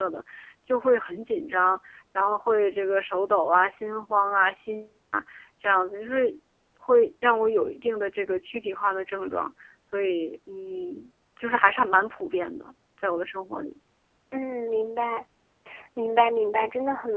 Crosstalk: none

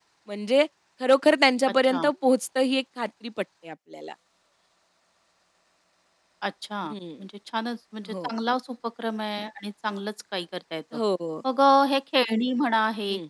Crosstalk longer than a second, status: none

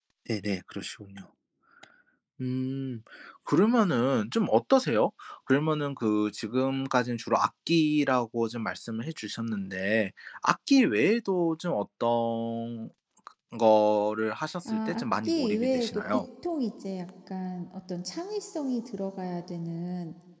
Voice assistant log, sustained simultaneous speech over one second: present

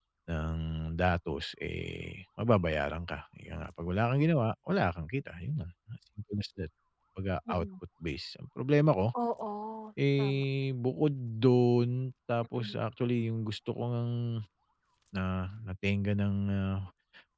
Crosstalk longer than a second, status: none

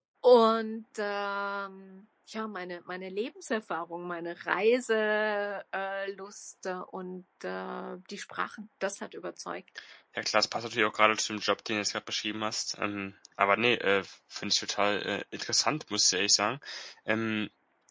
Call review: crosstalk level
none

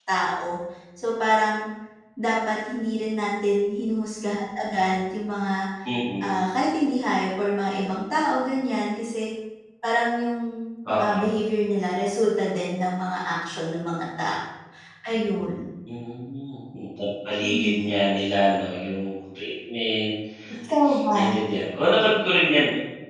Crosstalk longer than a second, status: none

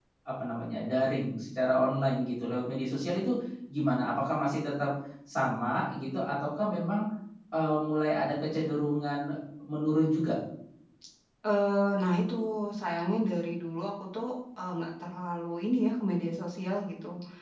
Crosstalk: none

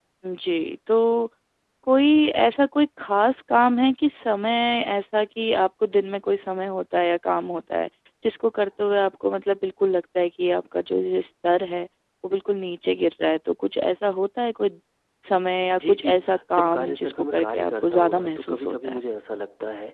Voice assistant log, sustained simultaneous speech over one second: present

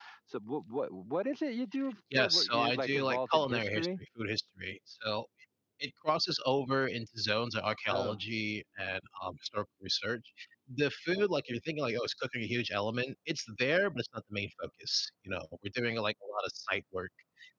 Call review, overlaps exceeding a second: present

